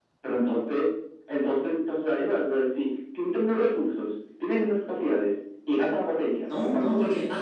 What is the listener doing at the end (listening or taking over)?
taking over